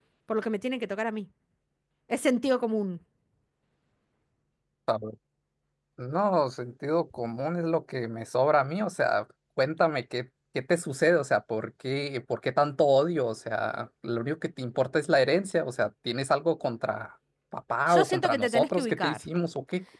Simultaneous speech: Yes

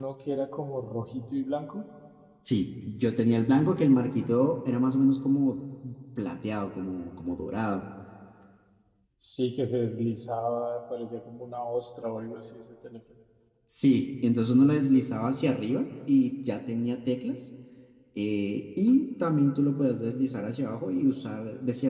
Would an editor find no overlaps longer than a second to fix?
Yes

